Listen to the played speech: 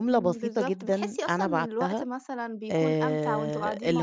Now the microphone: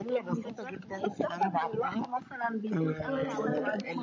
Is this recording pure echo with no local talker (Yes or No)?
No